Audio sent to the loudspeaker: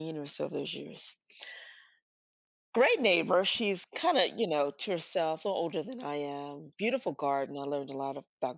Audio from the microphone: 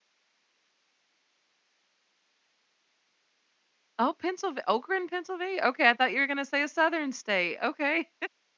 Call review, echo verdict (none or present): none